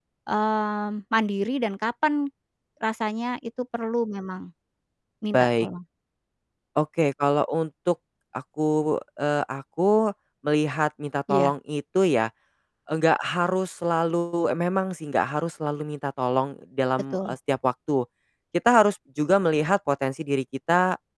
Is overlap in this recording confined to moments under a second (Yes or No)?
Yes